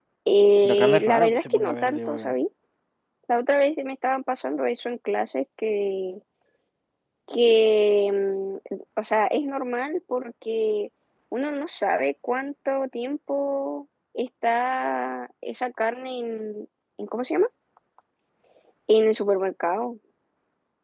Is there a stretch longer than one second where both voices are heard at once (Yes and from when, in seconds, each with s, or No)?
Yes, from 0.6 s